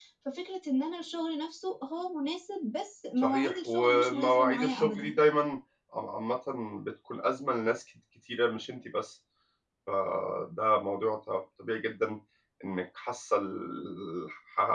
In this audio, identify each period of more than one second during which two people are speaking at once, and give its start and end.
3.2-5.2

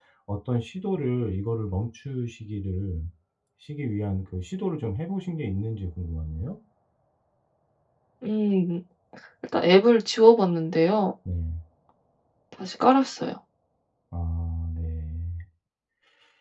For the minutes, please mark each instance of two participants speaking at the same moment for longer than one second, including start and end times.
none

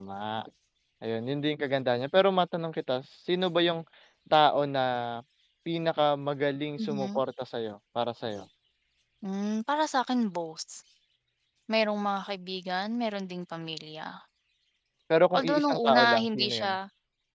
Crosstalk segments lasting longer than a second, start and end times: 15.3-16.7

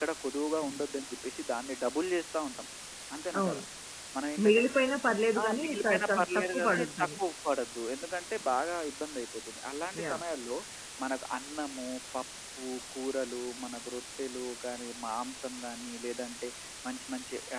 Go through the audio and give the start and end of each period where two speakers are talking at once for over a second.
5.4-7.1

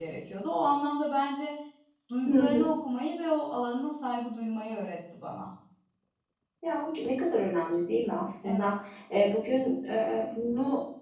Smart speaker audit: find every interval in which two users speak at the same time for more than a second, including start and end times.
none

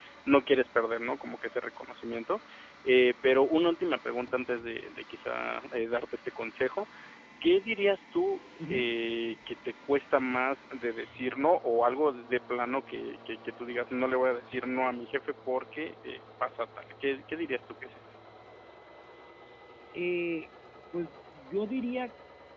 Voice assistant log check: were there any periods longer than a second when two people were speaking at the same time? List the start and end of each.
none

